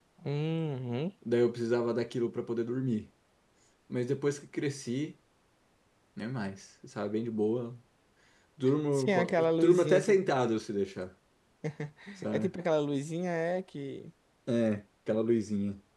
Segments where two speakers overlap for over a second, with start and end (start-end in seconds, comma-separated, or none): 8.9-10.2